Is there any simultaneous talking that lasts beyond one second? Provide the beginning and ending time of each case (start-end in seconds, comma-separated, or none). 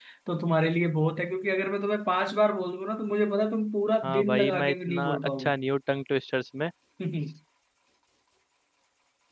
4.0-5.5